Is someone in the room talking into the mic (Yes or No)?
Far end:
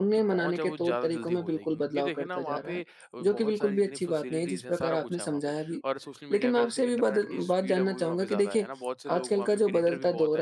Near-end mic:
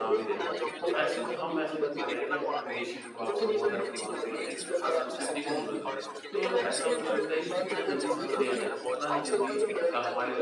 Yes